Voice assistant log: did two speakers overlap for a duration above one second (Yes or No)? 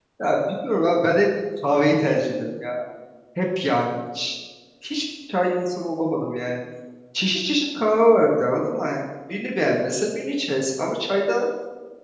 No